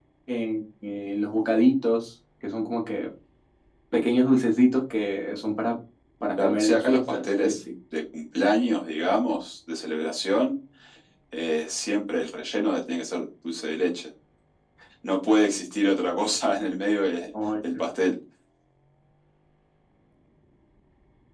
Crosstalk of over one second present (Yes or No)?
Yes